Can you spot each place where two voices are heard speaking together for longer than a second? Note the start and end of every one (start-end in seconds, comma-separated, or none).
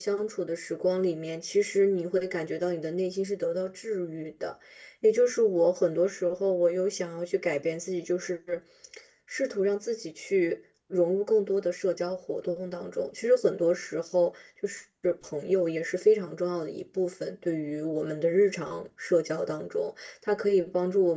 none